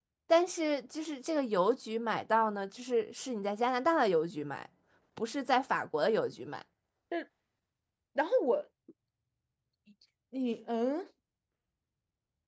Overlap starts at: none

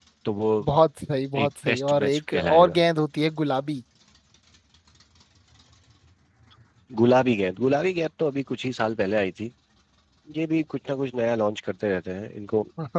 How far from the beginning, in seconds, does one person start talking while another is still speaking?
1.4 s

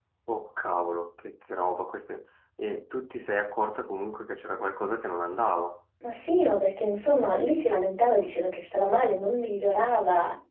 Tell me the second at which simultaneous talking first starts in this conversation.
none

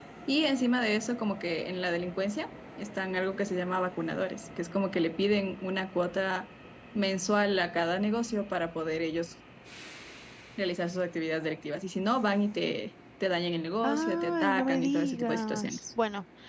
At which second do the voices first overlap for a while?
13.8 s

